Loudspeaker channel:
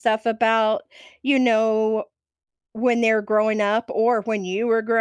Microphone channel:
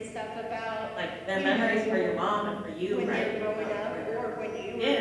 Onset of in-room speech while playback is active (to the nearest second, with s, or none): 1 s